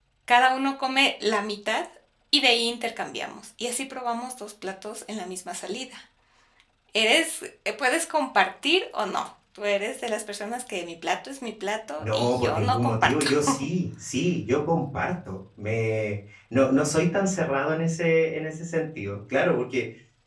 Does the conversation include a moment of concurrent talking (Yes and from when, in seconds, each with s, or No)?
Yes, from 12.0 s